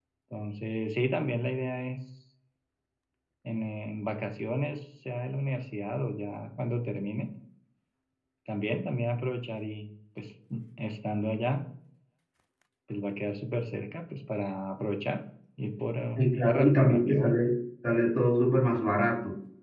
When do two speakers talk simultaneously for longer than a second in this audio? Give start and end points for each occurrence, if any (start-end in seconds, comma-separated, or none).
16.2-17.4